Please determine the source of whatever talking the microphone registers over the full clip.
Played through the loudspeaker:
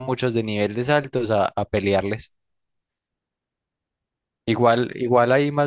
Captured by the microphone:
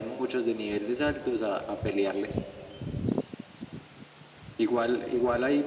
echo only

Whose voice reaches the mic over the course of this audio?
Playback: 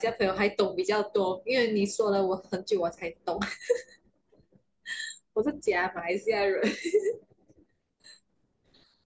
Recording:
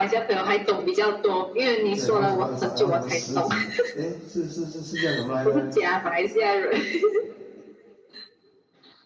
both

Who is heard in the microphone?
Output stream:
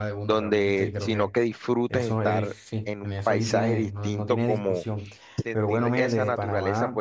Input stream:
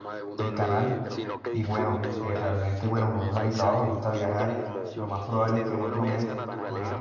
both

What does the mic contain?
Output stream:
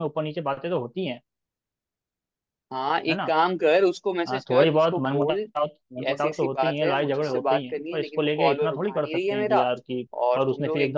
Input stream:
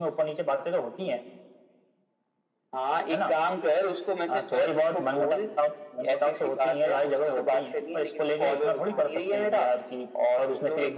echo only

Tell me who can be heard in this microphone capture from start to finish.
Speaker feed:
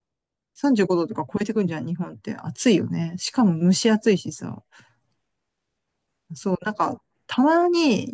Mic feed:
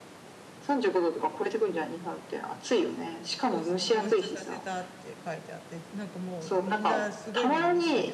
both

